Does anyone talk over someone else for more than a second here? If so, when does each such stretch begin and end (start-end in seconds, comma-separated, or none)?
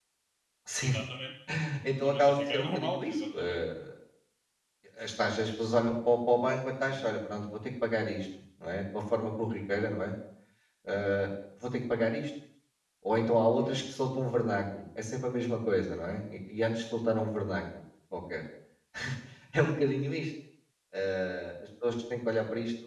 2.0-3.6